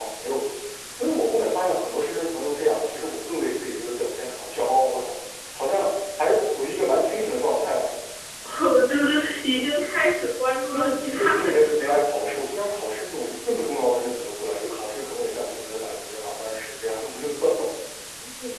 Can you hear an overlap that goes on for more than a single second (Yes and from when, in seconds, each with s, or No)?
Yes, from 10.7 s